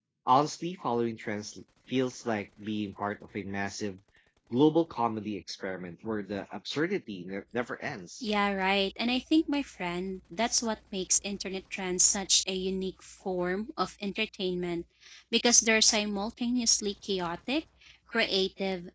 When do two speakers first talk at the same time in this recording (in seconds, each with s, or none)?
none